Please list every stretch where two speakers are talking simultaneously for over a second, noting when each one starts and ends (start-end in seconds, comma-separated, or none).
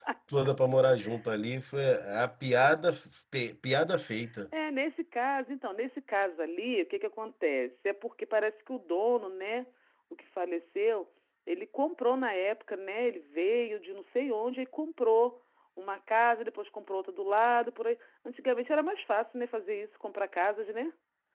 none